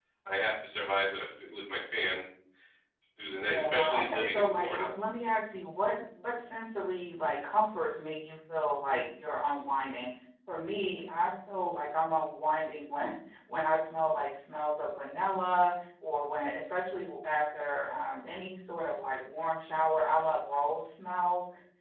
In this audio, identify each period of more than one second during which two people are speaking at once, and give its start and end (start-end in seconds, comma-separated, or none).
3.3-4.9